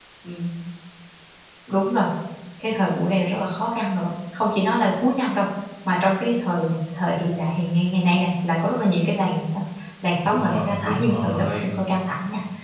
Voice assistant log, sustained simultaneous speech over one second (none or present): present